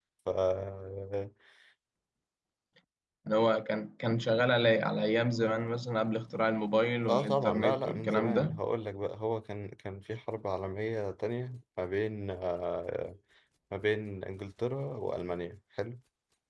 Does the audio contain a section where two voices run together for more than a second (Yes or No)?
Yes